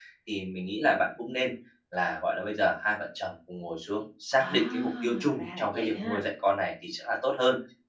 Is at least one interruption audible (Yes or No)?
Yes